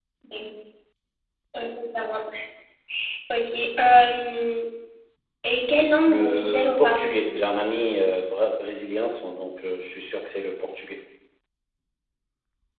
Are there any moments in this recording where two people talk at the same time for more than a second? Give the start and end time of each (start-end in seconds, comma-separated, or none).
6.0-7.5